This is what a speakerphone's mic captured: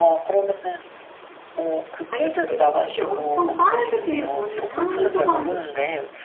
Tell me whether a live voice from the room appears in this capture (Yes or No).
Yes